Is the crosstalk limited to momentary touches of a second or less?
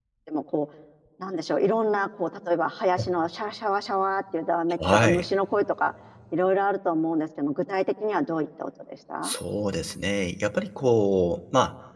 Yes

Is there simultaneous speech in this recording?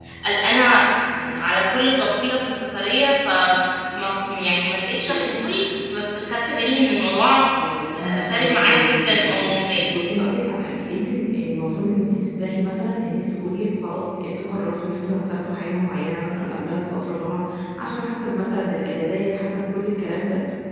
Yes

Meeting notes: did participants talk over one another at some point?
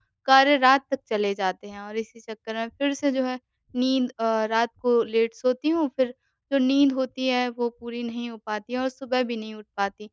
No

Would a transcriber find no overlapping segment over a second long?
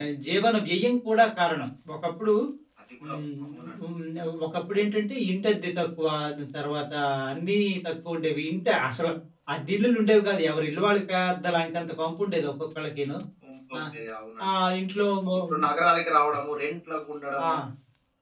Yes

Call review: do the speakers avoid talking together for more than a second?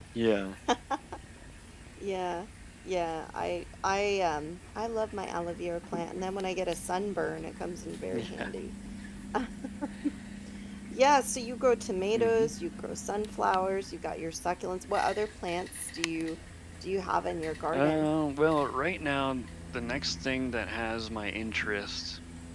Yes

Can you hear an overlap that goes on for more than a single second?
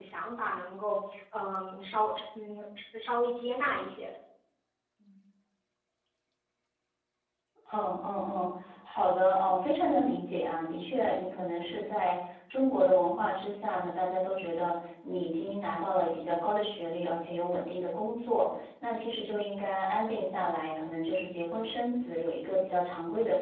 No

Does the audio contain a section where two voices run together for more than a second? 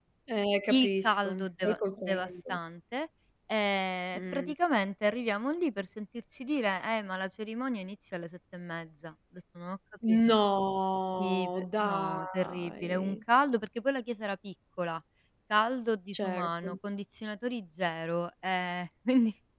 Yes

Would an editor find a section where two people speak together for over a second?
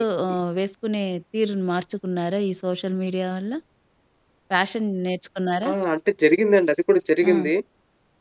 No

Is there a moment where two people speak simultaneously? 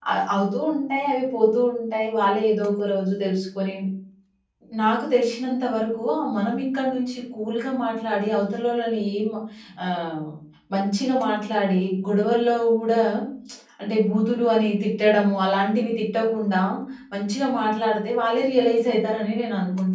No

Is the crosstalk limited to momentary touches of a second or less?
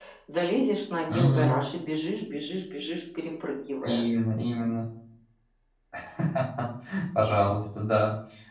Yes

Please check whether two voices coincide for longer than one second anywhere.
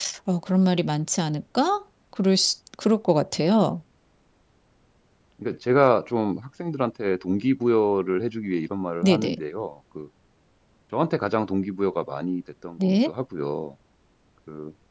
No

